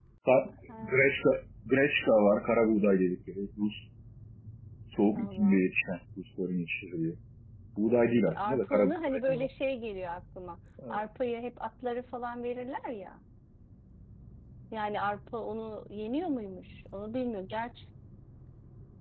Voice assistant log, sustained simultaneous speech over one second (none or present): present